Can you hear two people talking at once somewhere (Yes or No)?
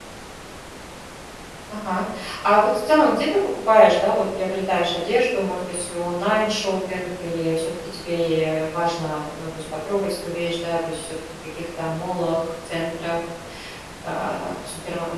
No